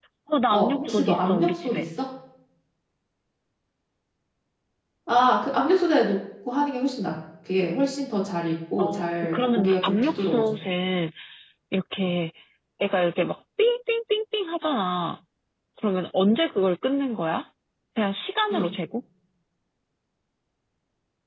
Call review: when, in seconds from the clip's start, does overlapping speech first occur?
0.5 s

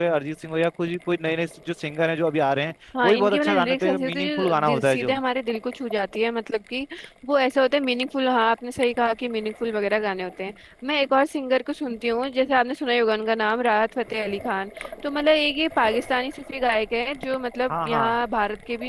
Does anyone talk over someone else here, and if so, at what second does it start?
3.0 s

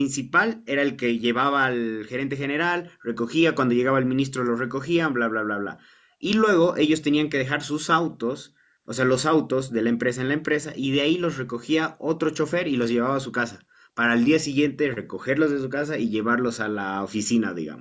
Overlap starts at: none

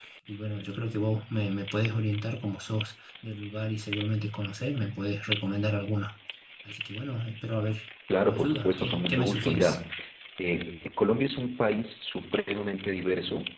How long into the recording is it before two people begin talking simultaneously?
8.2 s

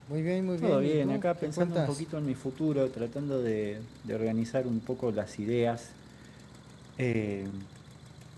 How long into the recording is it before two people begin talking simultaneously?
0.6 s

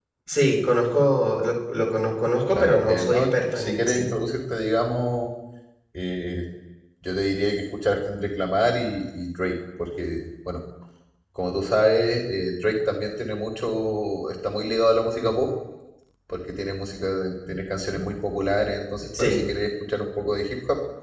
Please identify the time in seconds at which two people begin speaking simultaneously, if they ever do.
2.6 s

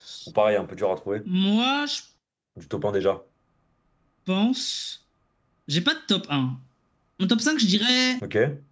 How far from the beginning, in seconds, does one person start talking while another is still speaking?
none

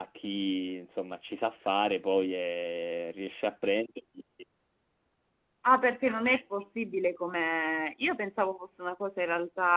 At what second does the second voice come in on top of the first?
none

